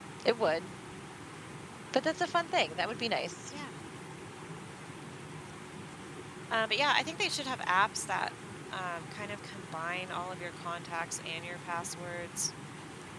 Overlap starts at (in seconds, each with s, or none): none